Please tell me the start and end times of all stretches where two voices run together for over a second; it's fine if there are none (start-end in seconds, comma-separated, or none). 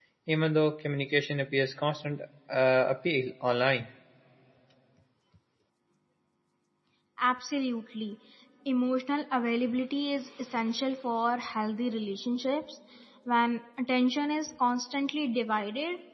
none